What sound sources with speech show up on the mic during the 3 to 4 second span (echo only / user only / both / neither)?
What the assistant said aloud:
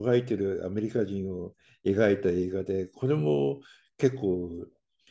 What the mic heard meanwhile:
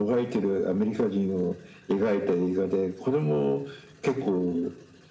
echo only